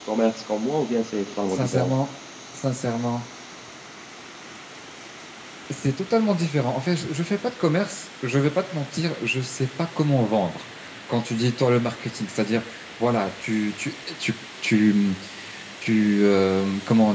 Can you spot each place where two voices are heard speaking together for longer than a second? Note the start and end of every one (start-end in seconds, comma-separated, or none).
none